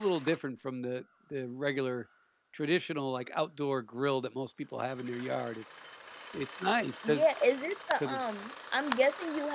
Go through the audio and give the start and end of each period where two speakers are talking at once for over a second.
none

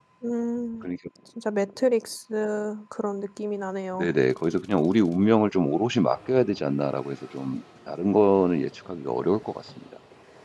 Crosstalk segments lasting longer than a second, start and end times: none

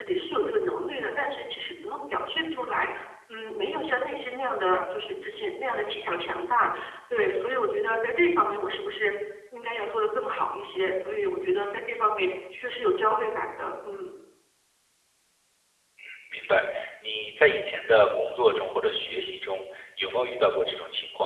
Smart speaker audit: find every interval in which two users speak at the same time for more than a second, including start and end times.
none

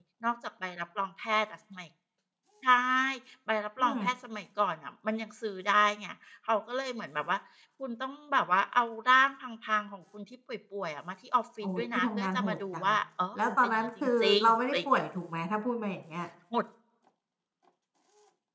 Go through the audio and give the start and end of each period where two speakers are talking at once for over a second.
11.6-12.9, 13.3-15.0

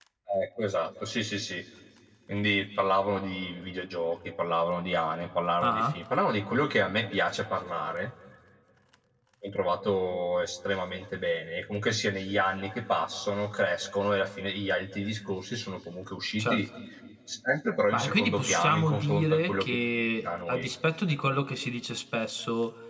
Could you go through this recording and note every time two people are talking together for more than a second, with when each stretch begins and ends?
17.9-19.8

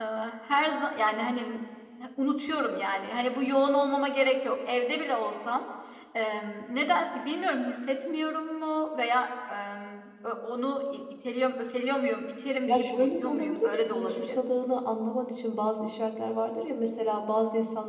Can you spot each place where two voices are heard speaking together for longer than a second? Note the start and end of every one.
12.7-14.4

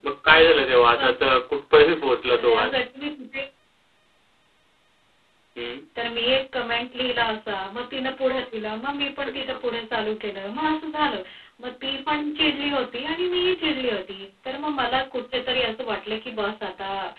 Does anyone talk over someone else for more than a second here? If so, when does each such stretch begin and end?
none

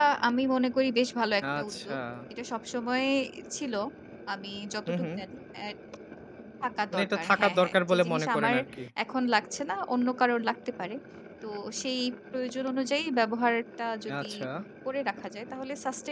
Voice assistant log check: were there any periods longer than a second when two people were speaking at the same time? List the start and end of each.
6.9-8.6

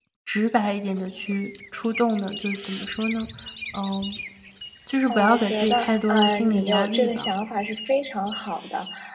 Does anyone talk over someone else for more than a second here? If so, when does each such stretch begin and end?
5.1-7.3

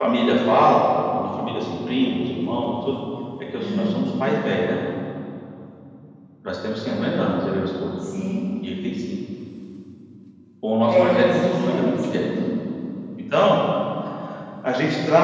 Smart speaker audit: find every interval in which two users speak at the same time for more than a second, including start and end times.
10.9-12.3

